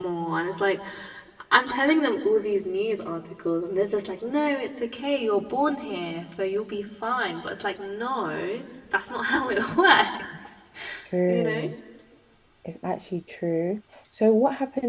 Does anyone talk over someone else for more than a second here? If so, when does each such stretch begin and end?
none

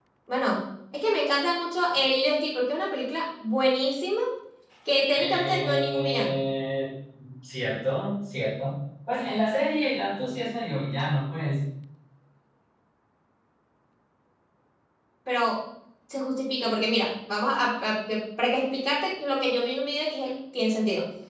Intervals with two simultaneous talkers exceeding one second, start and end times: 5.1-6.4

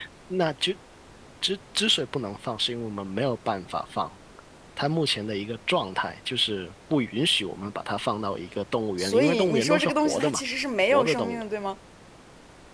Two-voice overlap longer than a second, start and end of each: 9.0-10.4

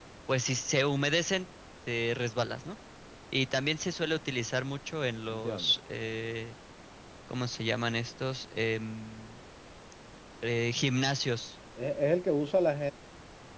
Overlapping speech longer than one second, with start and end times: none

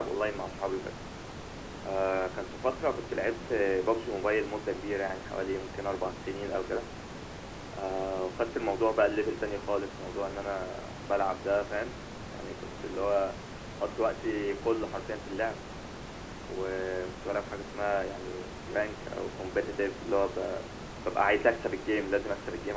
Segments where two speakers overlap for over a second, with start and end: none

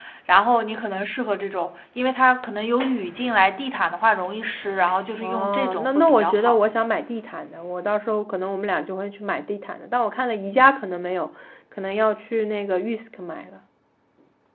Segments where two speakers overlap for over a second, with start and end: 5.2-6.6

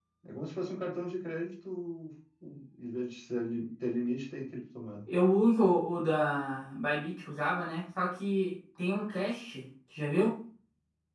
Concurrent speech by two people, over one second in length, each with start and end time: none

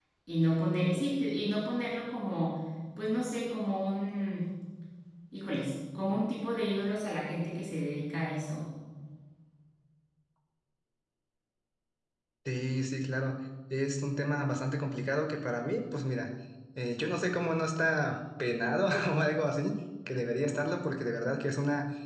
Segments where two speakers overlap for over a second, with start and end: none

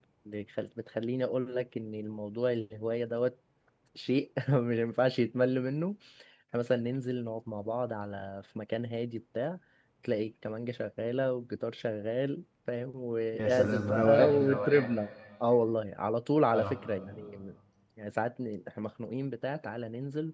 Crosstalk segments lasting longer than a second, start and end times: 13.3-14.9

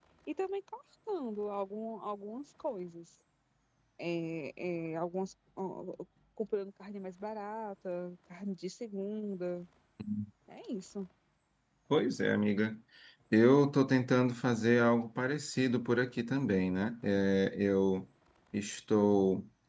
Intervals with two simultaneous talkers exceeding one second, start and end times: none

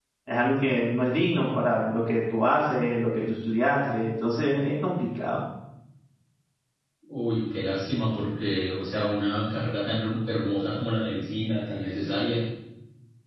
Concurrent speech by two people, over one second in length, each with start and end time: none

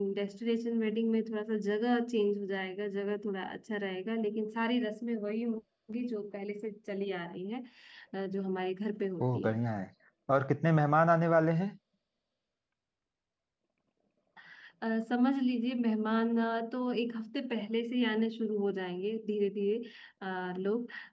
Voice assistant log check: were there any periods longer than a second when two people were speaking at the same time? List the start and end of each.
none

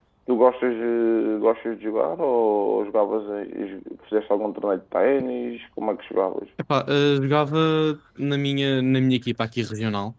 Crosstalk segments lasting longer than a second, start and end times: none

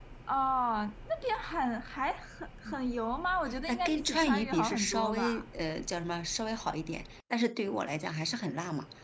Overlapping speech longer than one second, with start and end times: 3.7-5.4

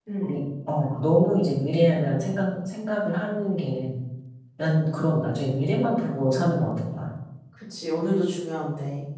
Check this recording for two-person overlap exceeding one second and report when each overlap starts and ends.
none

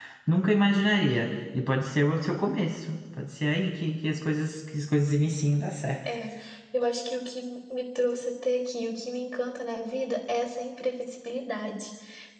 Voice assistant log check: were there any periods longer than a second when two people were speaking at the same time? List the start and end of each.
none

